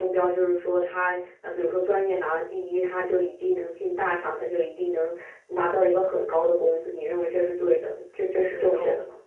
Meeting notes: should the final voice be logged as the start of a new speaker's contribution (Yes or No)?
Yes